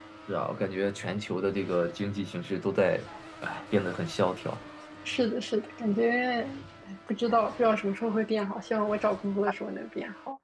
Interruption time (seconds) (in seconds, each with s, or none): none